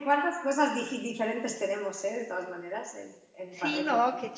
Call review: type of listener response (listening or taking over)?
taking over